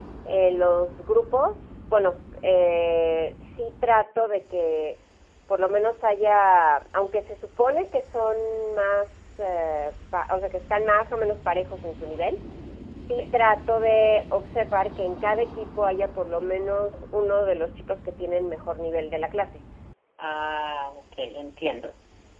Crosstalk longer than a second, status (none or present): none